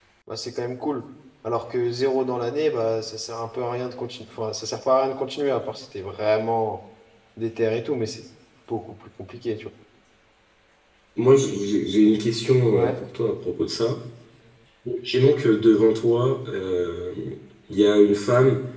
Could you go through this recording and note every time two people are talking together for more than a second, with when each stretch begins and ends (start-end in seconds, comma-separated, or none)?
none